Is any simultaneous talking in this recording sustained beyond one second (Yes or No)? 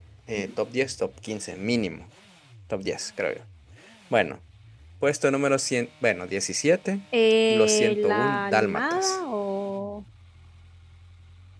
Yes